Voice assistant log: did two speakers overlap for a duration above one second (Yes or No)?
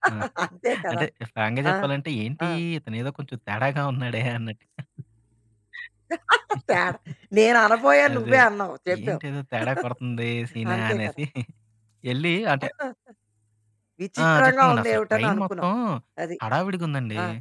Yes